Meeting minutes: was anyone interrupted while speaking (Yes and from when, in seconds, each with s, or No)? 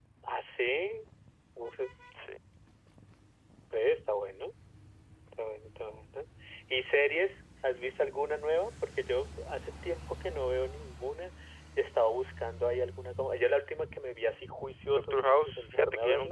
Yes, from 14.9 s